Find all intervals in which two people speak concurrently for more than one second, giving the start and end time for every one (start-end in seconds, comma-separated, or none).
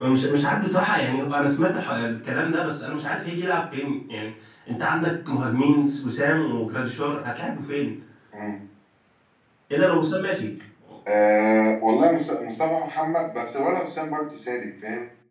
none